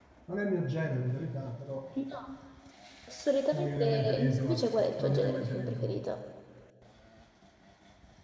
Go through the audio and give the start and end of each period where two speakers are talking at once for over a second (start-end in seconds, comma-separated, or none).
3.5-6.1